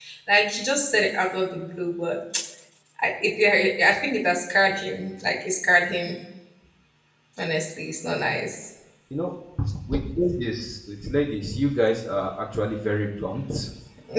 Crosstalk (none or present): none